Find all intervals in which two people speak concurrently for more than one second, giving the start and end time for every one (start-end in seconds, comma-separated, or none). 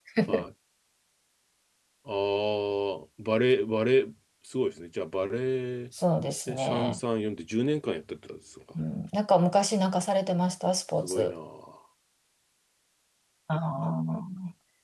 none